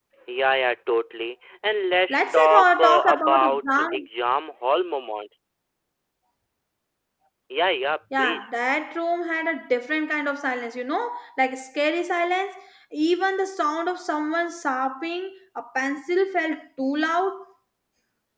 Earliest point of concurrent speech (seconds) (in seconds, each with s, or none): 2.1 s